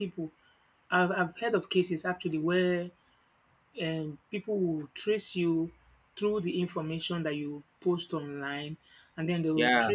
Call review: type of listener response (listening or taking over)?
listening